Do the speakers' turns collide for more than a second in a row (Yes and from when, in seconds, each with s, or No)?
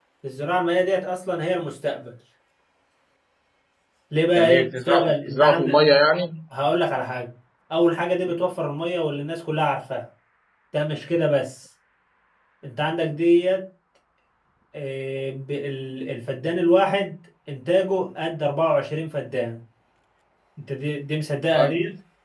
Yes, from 4.3 s